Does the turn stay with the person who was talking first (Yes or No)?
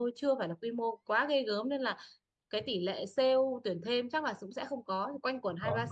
Yes